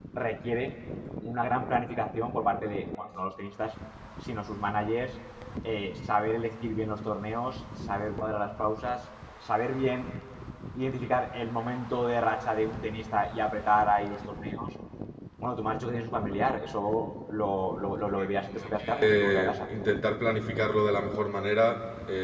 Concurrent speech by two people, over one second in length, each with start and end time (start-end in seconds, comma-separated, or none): 18.1-19.6